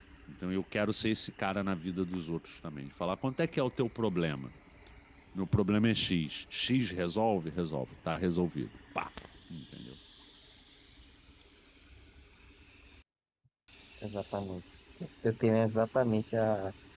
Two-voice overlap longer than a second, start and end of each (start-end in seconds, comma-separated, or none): none